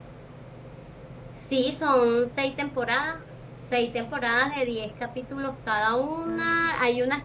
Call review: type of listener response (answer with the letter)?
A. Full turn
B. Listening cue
B